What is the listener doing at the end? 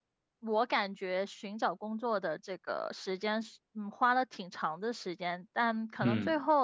listening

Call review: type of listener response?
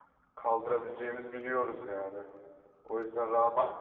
taking over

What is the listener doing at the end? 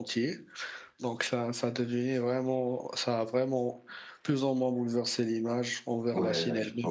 taking over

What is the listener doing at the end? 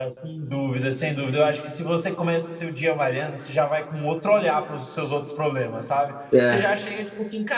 listening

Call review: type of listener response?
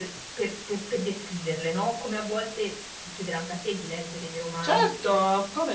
taking over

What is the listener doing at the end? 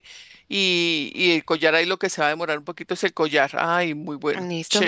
taking over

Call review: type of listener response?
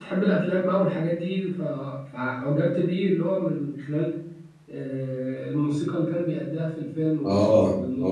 taking over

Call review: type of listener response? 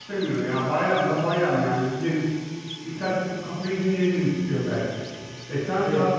listening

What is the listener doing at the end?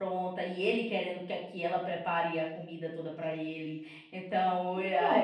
taking over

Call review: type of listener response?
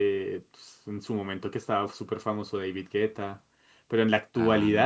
listening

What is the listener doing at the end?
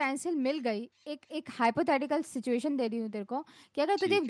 listening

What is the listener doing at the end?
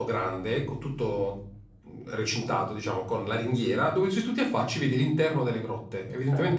listening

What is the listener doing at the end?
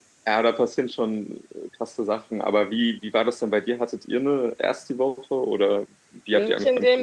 taking over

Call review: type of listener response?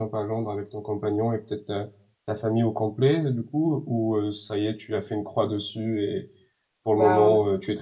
listening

